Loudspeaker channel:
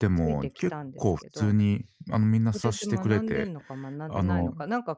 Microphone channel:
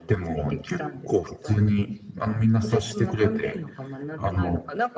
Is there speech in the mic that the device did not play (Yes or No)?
No